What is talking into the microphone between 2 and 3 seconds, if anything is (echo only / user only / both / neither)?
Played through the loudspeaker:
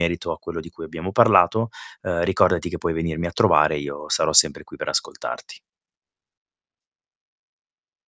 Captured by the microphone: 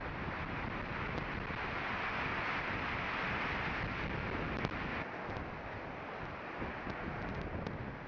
neither